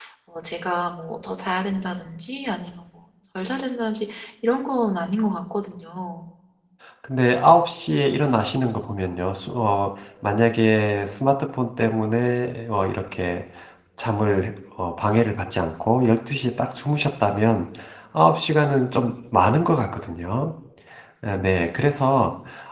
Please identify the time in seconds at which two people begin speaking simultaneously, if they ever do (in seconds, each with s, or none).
none